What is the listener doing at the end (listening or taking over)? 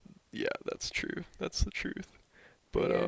taking over